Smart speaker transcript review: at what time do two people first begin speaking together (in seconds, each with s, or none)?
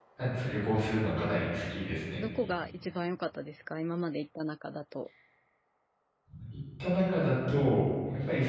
none